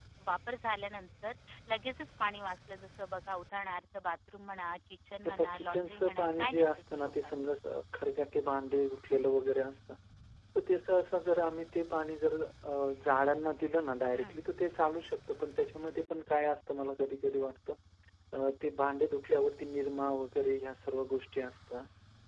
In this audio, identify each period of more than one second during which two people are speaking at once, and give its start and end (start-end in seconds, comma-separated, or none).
5.3-7.3